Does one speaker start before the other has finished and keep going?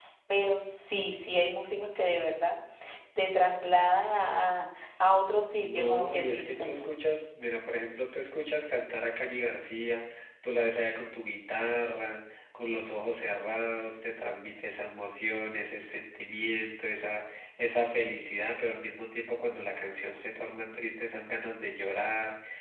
Yes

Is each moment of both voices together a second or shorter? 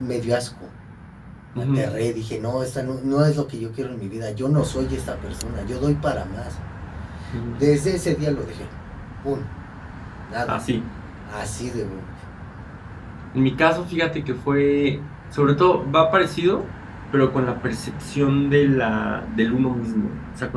Yes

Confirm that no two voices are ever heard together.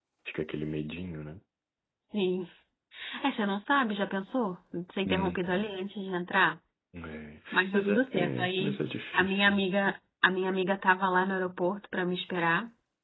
No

